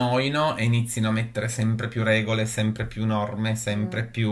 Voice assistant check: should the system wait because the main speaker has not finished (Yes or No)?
Yes